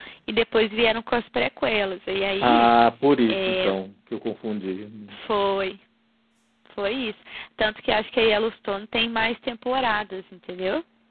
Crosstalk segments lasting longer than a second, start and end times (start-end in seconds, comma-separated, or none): none